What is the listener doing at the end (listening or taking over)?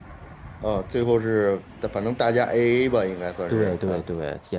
taking over